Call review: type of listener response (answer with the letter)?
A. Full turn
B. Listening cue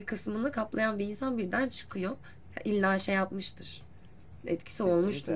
A